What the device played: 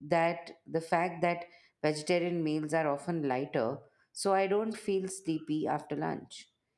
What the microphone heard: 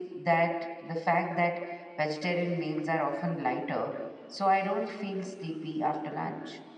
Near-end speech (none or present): none